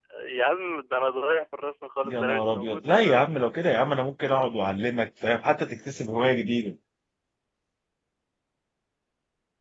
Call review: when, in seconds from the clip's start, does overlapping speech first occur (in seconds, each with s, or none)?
2.0 s